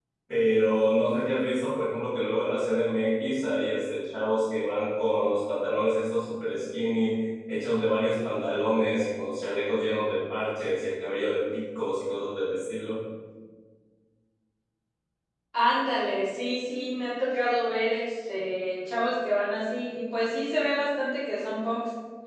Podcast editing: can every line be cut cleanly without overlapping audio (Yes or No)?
Yes